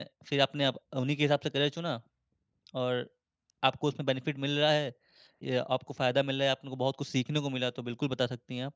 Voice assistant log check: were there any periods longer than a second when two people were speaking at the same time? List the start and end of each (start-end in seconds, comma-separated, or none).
none